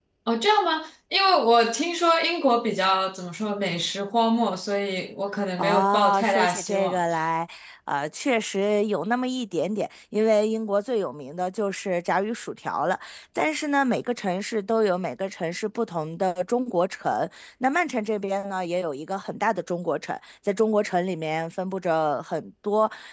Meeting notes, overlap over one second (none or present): present